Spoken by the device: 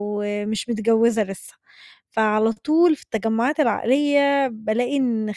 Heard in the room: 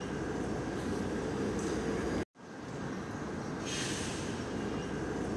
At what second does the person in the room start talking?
none

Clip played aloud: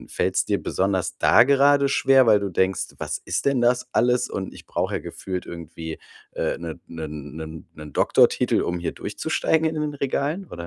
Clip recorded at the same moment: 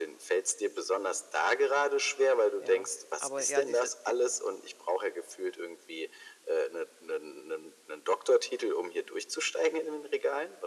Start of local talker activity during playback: 3 s

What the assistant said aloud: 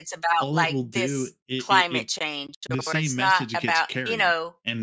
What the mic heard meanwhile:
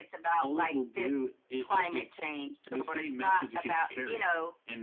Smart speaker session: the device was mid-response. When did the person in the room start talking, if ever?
none

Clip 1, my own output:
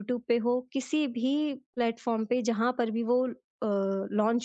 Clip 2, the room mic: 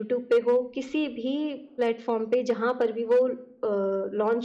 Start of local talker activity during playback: none

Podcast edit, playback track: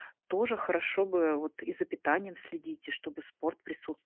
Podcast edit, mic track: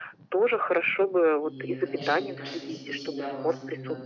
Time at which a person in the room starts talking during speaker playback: 1 s

